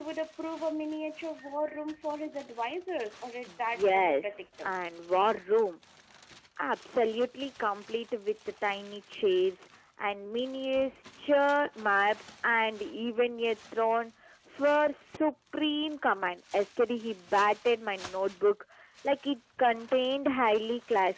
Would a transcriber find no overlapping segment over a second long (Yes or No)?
No